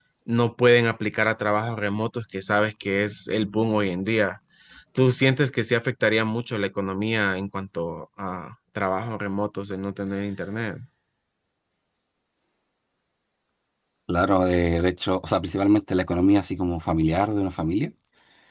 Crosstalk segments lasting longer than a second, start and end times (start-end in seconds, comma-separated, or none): none